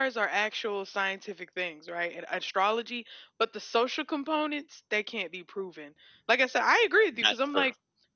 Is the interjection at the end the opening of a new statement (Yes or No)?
No